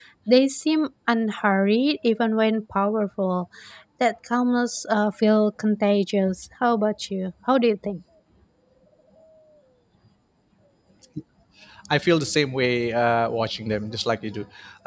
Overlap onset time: none

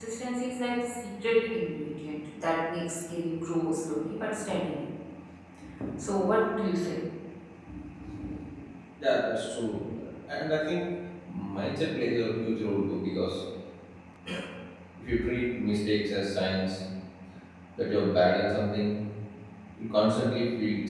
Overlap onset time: none

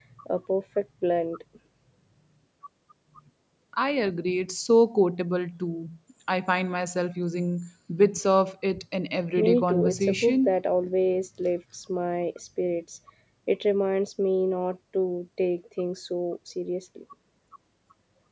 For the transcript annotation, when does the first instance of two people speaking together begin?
9 s

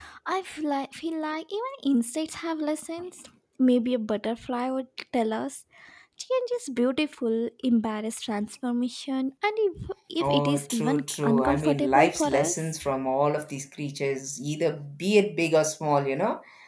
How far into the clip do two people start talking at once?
10 s

